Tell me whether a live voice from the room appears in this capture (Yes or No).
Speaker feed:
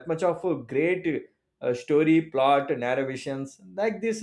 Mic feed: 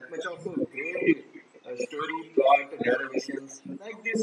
No